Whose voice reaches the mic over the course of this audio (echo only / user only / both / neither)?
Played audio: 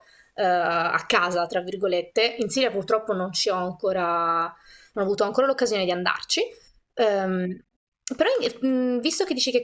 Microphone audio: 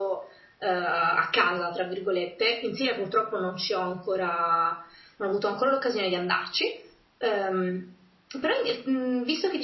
echo only